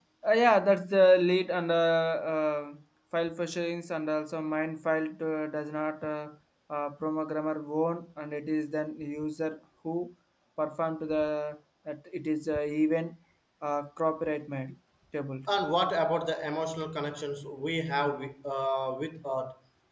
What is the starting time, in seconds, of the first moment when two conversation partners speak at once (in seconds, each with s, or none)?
none